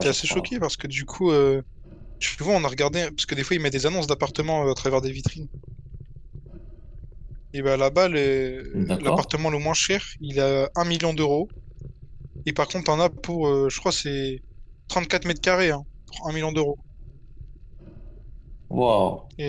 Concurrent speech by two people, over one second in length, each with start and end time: none

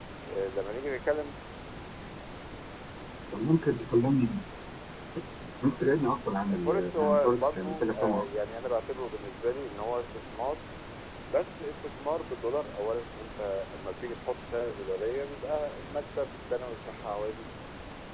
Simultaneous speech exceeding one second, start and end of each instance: 6.5-8.2

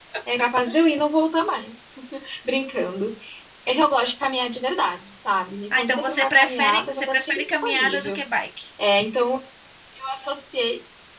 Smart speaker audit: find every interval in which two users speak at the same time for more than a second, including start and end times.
5.8-8.2

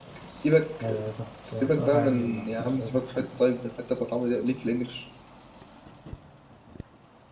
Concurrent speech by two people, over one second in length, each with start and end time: 1.5-3.3

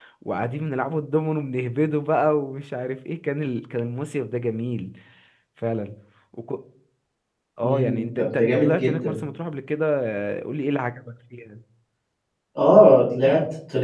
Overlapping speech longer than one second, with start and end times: 7.6-9.2

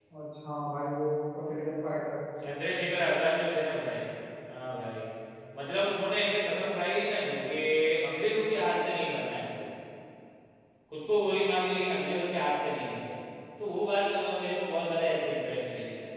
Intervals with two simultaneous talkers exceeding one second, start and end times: none

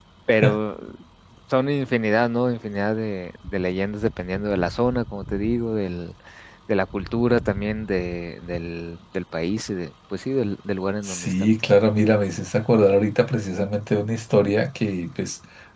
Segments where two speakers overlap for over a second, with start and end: none

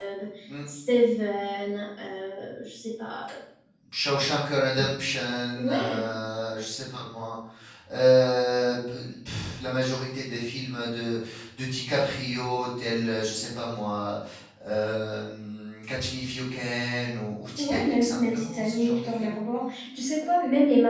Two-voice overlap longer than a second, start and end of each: 17.6-19.2

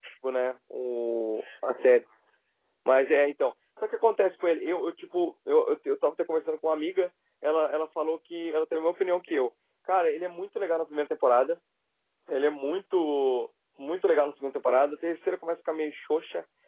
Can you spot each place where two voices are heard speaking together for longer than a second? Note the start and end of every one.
none

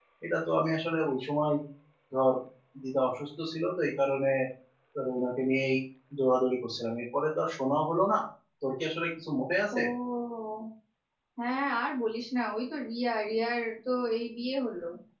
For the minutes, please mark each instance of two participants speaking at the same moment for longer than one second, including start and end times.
none

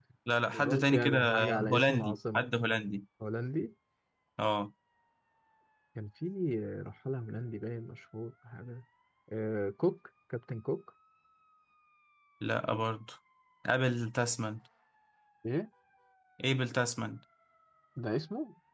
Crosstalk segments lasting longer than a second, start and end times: 0.6-2.5

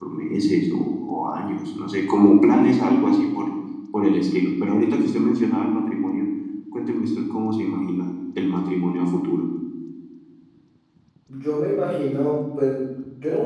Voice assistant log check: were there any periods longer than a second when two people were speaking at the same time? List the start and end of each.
none

